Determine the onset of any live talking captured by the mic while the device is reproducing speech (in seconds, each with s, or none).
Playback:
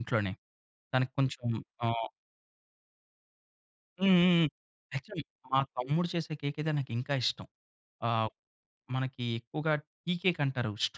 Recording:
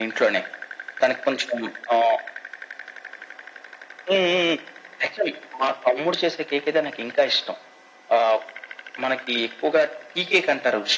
none